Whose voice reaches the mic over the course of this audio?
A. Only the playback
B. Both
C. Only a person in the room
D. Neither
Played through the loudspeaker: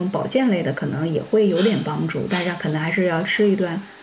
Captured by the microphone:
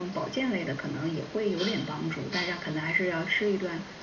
A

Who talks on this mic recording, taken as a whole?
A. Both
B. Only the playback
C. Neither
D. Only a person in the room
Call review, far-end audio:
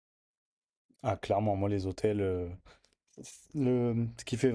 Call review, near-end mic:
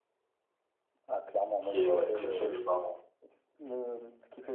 A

